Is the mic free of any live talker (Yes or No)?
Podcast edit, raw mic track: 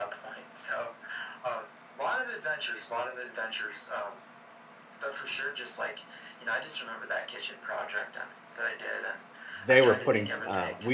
No